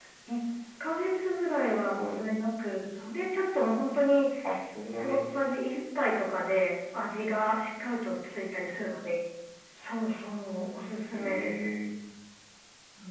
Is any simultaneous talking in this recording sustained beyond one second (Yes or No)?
No